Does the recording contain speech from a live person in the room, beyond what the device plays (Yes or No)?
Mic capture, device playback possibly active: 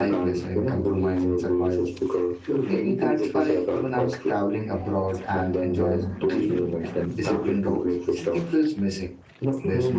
Yes